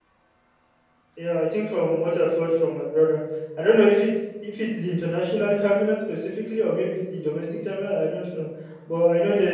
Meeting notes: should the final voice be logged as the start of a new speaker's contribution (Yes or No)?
No